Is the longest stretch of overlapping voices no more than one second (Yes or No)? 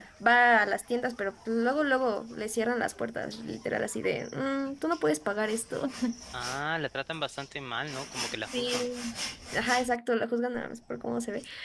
Yes